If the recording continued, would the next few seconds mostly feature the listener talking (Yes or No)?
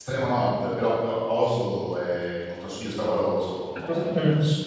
No